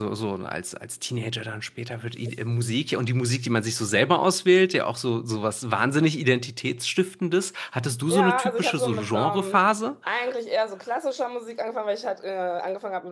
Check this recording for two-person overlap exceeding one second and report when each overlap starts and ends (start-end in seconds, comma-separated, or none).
8.1-9.6